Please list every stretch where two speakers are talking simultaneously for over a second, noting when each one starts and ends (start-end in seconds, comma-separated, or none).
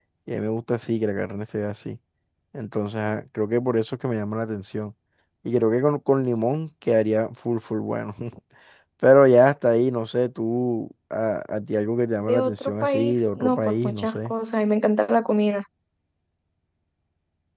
12.2-14.3